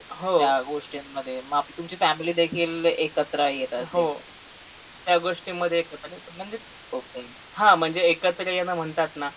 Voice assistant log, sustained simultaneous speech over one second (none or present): none